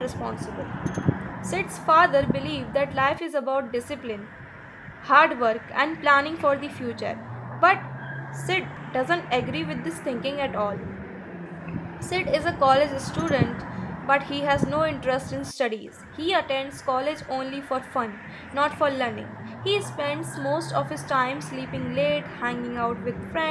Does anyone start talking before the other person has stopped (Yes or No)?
No